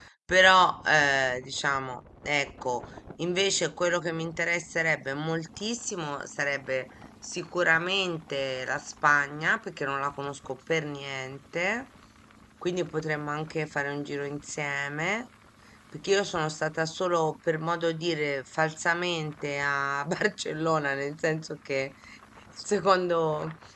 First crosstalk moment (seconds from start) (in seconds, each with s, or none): none